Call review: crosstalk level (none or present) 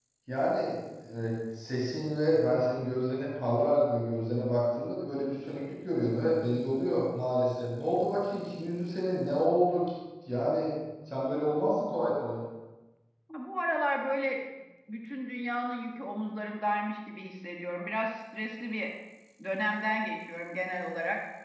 none